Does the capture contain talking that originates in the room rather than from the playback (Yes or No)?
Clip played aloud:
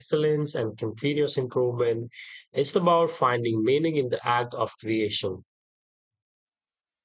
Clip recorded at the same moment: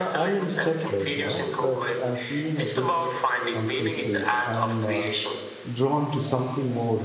Yes